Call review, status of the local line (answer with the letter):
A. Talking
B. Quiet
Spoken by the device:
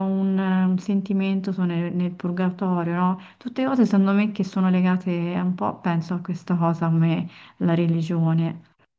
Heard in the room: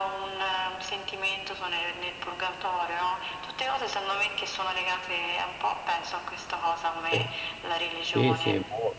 A